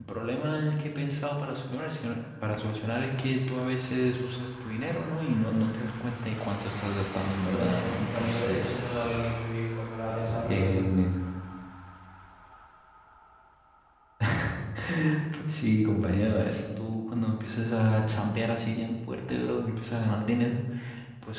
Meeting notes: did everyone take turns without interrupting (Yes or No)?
No